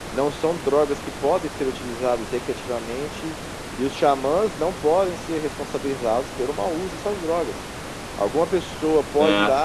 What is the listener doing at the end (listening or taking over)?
listening